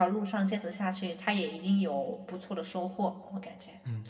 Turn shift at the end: Yes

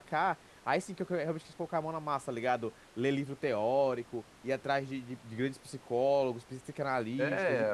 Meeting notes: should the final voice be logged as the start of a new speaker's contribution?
Yes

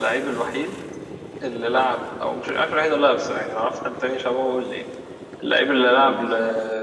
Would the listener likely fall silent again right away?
Yes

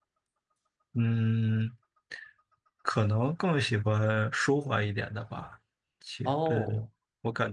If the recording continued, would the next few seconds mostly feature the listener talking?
No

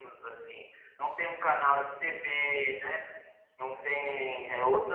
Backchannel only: Yes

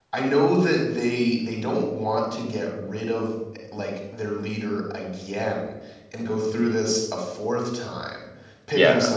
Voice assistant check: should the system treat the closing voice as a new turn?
No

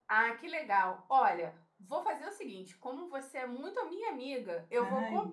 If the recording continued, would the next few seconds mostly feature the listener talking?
No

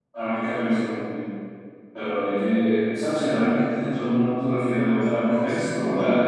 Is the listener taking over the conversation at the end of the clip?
No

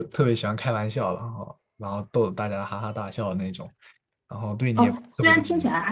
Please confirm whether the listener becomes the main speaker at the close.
Yes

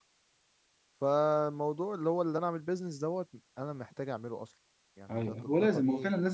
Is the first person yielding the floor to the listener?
Yes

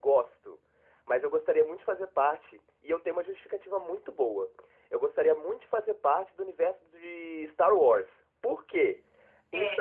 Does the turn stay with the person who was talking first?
Yes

